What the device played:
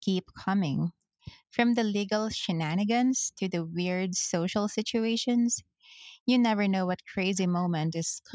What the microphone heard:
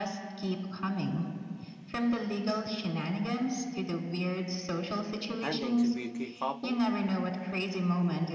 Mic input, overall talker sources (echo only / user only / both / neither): both